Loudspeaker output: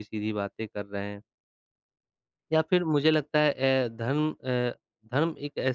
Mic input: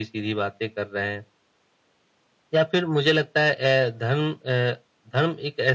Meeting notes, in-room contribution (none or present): none